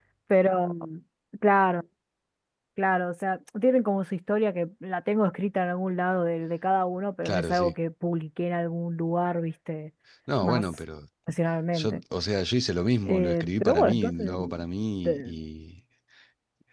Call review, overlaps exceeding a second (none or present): present